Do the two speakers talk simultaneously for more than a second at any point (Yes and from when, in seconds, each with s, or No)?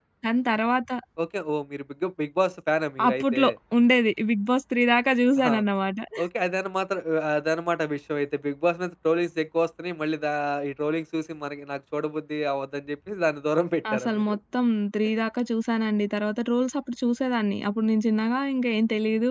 No